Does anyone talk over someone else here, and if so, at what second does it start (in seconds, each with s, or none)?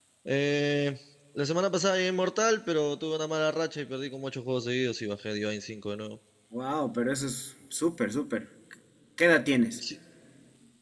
none